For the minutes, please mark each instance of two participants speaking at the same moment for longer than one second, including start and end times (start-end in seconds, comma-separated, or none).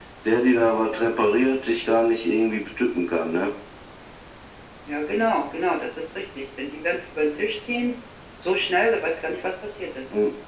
none